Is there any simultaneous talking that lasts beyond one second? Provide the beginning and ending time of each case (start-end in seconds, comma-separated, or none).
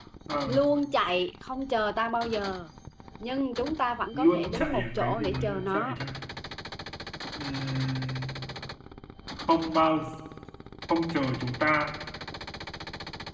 4.1-6.0